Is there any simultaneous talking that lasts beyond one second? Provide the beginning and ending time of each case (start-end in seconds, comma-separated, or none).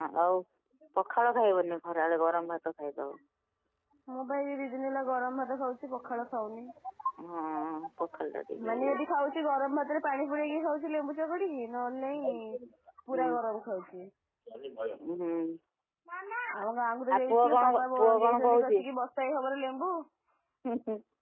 17.1-18.8